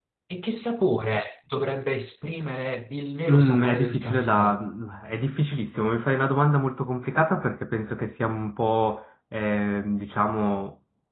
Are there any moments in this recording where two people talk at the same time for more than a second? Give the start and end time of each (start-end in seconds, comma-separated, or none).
3.3-4.6